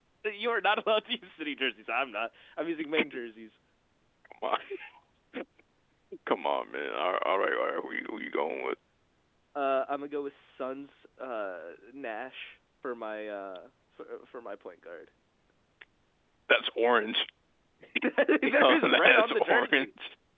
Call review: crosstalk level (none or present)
present